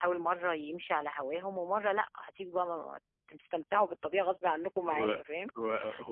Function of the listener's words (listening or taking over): taking over